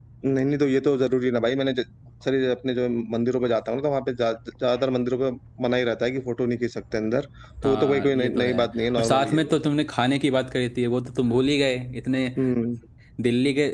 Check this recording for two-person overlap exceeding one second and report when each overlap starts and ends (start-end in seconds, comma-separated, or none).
7.6-9.5